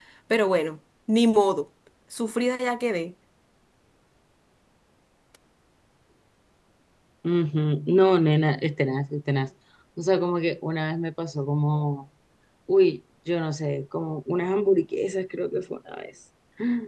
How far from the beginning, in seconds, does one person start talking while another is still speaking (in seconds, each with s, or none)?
none